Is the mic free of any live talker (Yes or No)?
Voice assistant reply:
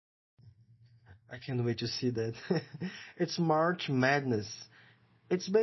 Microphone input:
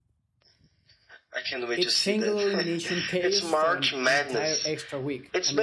No